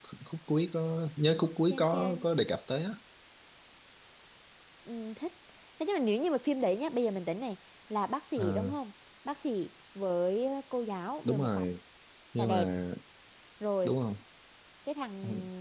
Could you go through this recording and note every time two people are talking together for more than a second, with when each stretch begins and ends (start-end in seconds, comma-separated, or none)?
none